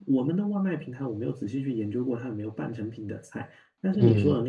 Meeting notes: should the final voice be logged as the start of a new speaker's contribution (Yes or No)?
No